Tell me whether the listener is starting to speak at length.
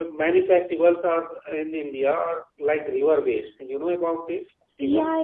Yes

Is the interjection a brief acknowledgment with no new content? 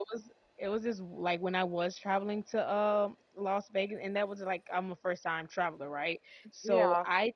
Yes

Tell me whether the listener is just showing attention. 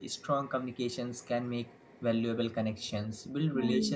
Yes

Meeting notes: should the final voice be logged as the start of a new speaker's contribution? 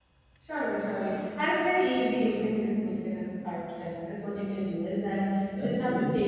No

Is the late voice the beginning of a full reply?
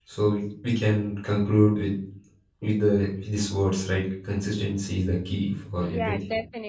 Yes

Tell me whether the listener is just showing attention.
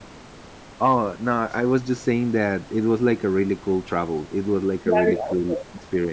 No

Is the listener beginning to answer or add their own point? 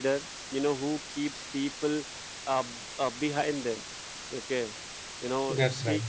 No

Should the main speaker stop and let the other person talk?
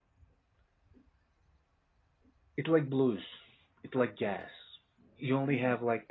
No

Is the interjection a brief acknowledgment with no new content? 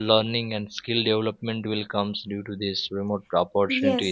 Yes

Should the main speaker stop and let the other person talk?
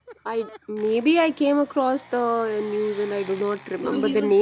Yes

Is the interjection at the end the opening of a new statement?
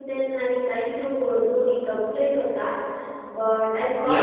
Yes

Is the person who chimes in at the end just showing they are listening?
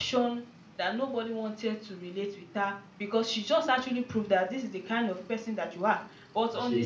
Yes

